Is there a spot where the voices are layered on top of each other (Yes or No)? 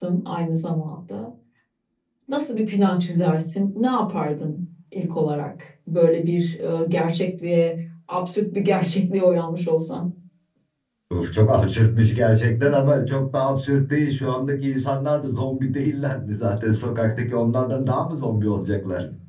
No